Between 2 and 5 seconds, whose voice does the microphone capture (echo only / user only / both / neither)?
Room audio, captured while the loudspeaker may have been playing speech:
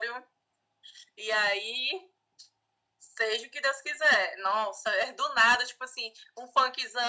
echo only